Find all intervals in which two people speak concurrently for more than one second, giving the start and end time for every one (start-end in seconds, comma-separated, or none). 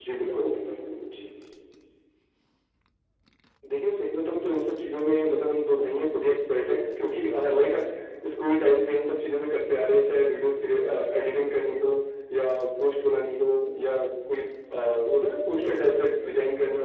none